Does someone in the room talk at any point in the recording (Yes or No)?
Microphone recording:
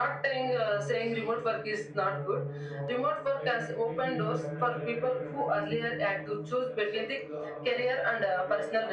Yes